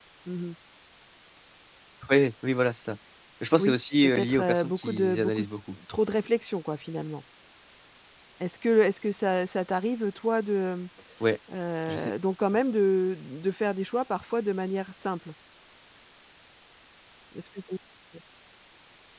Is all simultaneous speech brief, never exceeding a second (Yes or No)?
No